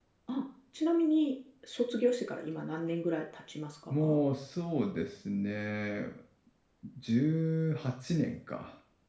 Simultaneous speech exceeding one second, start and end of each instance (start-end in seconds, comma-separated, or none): none